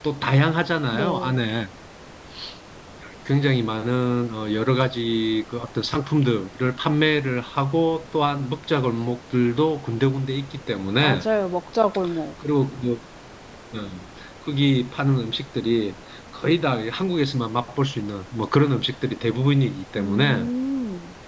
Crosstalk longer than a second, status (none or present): none